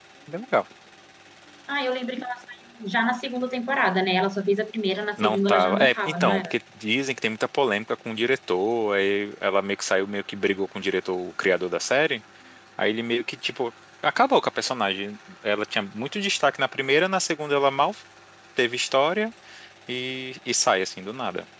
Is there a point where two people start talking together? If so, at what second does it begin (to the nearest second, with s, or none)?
5 s